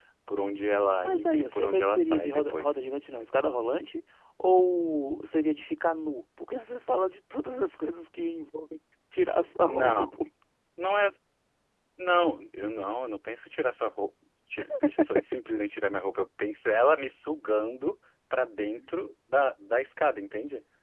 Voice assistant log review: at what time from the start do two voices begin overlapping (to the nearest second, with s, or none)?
1 s